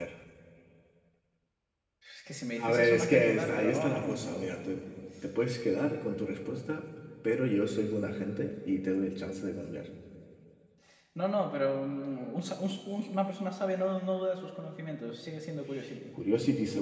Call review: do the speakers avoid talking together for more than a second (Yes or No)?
No